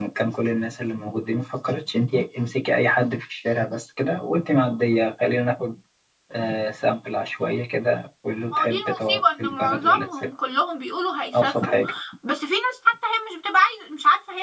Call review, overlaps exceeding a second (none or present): present